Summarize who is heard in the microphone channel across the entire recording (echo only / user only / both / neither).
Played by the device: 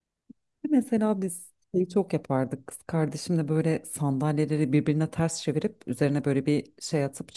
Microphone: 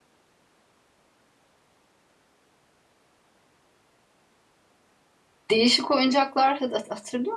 user only